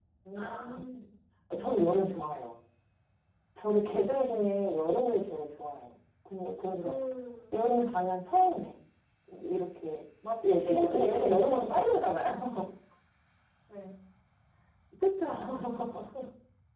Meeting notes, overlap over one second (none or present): present